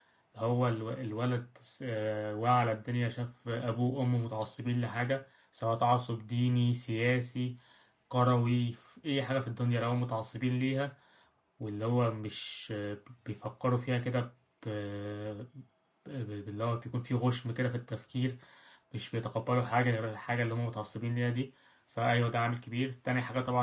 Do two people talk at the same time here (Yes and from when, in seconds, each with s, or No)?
No